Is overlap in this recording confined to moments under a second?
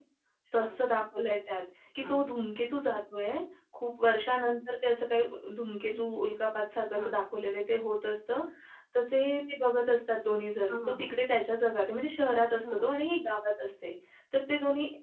Yes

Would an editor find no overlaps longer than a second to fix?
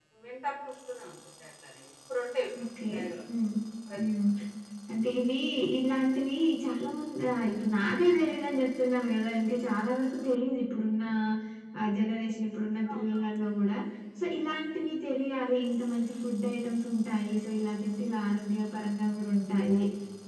Yes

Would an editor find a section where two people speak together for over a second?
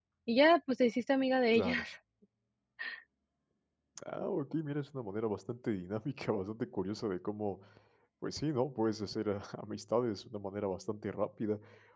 No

